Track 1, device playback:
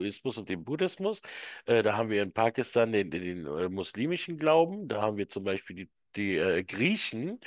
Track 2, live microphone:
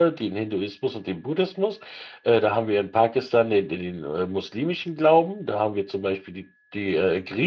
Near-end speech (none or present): none